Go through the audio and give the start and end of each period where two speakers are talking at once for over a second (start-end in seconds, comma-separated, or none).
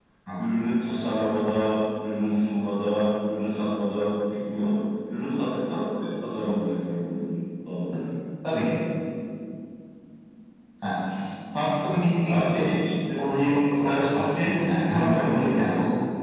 13.7-15.7